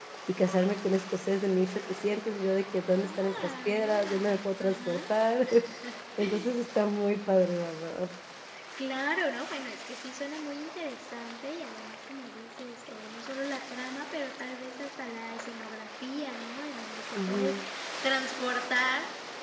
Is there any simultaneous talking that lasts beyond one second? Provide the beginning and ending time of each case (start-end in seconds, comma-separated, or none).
3.0-5.0